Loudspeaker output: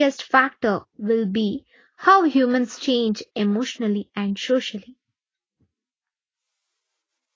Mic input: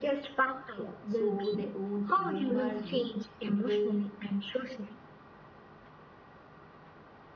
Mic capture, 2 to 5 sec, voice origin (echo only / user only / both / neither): both